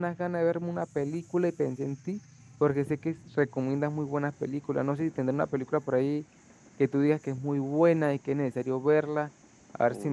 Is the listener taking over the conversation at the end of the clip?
Yes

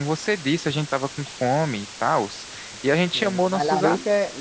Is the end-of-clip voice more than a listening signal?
Yes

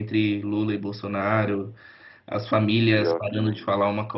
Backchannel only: Yes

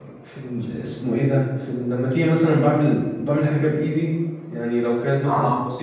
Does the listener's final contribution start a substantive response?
No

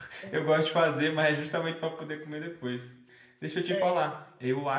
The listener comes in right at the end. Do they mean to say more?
No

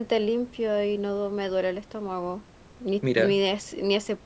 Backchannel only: Yes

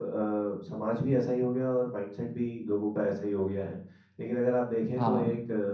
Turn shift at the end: No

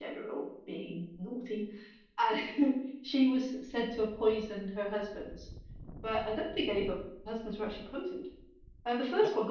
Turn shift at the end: No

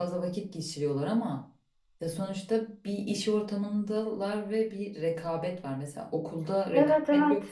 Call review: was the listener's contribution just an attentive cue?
Yes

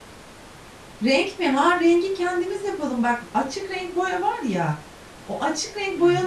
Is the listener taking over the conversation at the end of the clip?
No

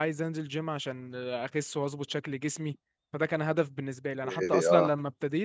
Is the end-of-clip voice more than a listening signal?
No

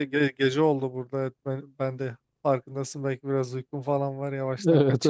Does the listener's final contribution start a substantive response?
Yes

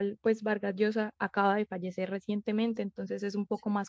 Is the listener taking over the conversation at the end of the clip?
No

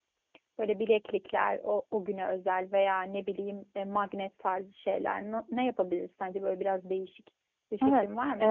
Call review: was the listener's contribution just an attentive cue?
No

